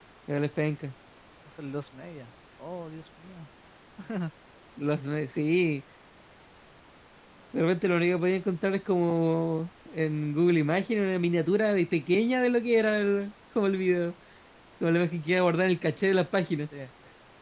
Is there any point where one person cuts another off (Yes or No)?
No